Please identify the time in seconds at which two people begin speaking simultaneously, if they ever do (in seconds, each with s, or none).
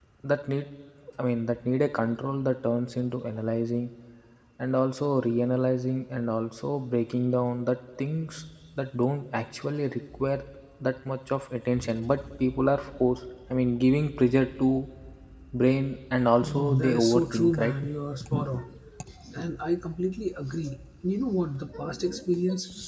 16.4 s